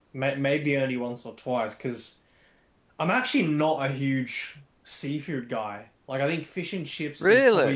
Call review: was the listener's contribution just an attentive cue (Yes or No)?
Yes